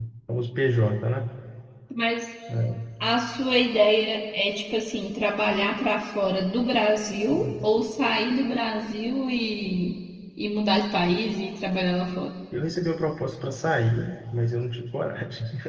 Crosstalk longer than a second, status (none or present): none